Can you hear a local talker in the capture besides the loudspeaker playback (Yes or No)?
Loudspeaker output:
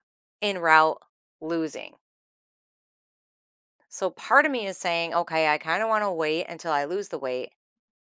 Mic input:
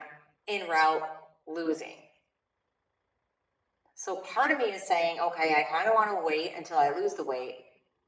No